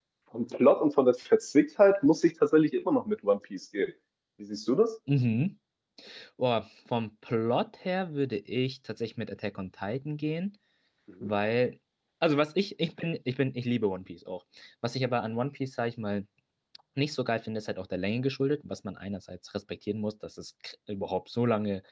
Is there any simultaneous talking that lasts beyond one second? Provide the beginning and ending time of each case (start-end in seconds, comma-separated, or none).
none